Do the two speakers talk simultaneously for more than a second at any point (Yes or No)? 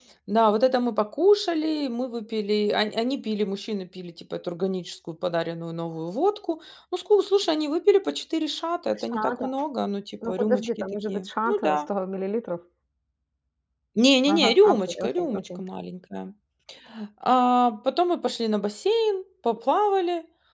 Yes